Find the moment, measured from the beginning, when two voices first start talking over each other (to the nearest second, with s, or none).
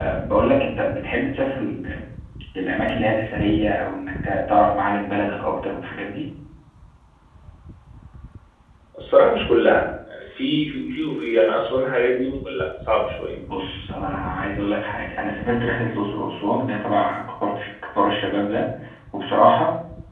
none